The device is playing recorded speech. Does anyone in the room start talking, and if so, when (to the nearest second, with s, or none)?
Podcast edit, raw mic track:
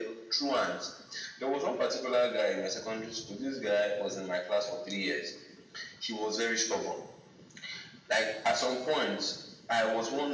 none